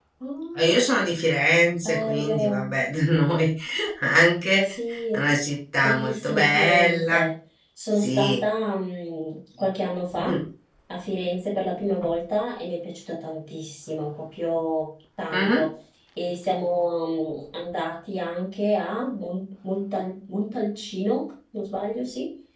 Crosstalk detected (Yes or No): Yes